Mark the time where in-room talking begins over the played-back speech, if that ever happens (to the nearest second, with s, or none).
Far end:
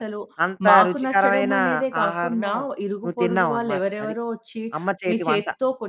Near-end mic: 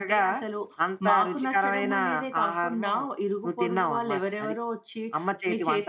none